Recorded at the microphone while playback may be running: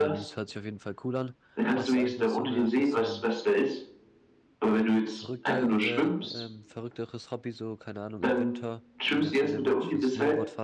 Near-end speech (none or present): present